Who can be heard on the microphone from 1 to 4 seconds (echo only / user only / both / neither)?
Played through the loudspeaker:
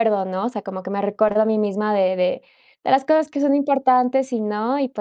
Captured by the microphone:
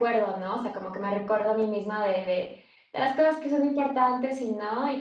echo only